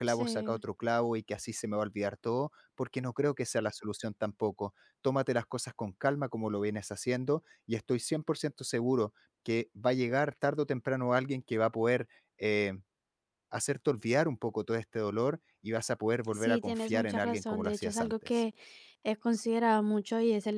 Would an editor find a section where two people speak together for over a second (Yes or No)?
Yes